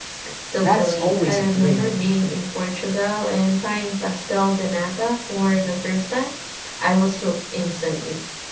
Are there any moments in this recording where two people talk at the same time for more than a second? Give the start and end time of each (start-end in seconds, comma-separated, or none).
0.5-1.9